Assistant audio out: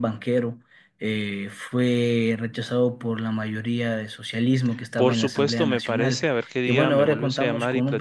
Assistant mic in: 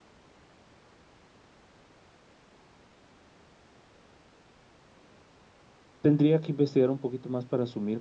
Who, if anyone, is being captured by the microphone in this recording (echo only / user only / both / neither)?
user only